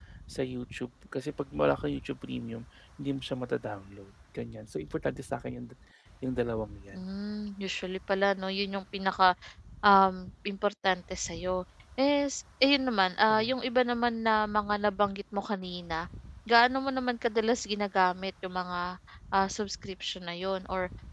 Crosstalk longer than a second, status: none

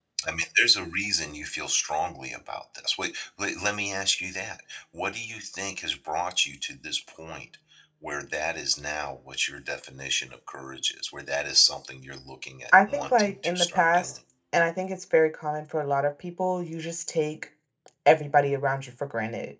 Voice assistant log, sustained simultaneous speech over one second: present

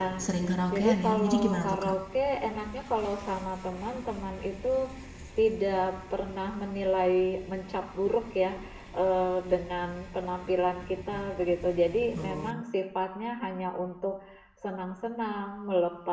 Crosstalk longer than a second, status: present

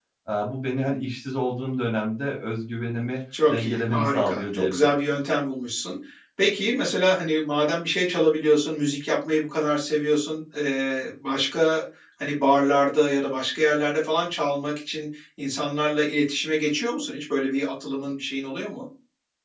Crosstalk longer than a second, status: present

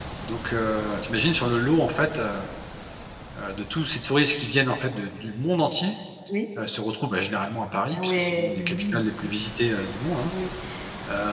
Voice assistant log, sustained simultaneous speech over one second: present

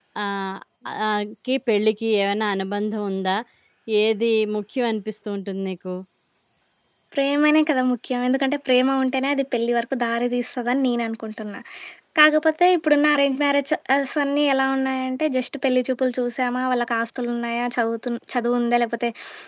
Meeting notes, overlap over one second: none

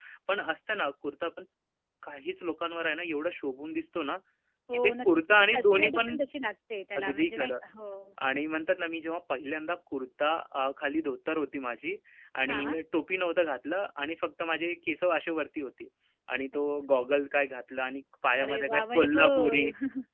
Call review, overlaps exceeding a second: present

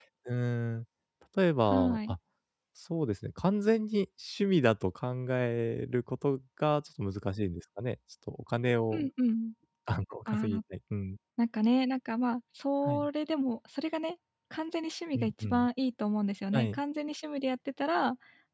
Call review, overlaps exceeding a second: none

